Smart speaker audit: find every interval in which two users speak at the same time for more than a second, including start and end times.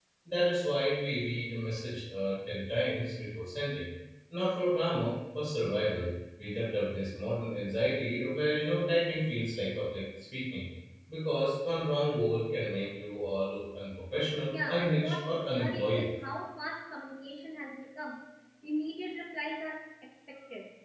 14.4-16.1

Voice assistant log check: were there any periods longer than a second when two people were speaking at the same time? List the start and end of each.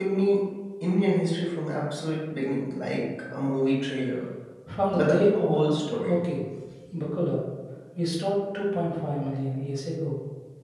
4.9-6.1

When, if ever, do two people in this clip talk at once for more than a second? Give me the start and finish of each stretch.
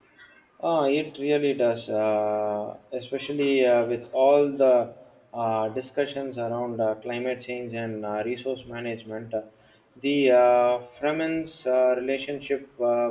none

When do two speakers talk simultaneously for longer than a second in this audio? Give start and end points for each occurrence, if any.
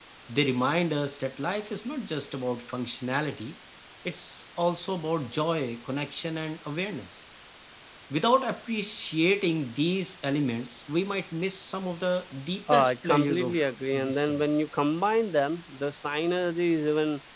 12.7-14.6

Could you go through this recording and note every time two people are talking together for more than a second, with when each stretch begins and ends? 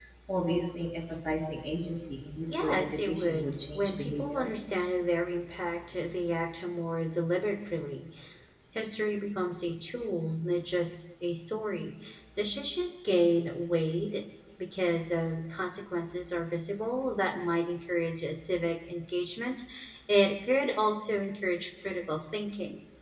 2.5-4.5

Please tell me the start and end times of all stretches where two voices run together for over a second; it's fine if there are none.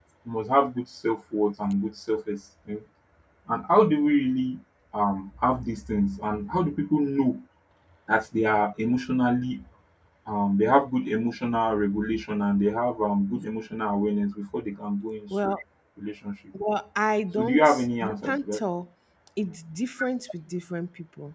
17.4-18.6

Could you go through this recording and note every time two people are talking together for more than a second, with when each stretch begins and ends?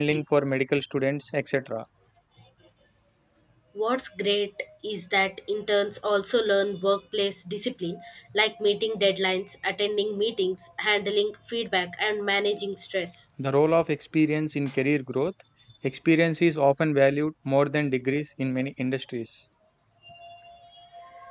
none

